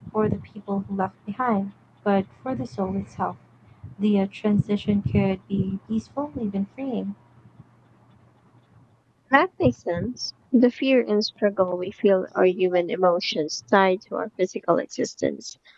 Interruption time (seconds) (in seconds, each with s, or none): none